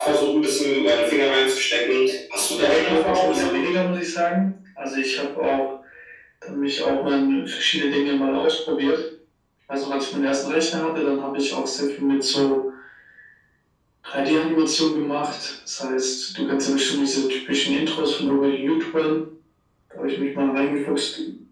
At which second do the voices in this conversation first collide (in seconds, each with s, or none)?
2.5 s